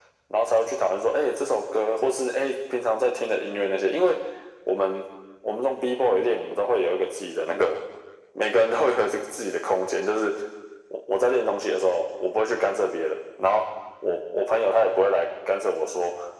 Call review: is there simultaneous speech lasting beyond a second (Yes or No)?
No